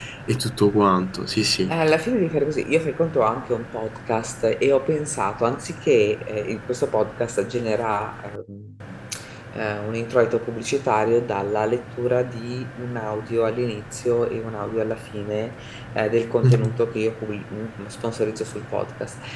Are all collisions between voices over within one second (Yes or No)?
Yes